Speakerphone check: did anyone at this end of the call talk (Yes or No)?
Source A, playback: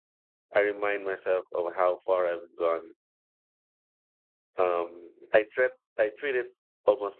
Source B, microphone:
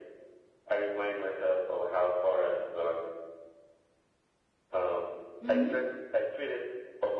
Yes